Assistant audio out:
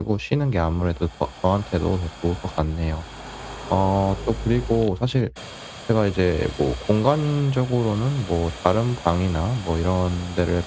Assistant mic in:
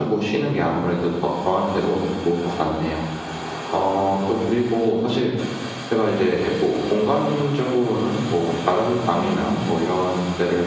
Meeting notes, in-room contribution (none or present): present